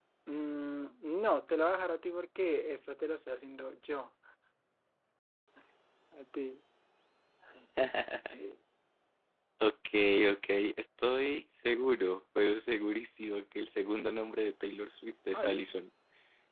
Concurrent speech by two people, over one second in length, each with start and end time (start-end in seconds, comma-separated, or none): none